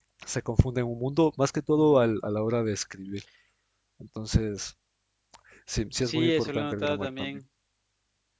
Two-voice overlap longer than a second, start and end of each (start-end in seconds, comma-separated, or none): 6.0-7.4